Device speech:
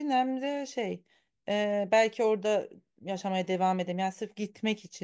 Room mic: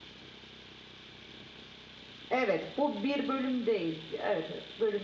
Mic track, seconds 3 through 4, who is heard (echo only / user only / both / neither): user only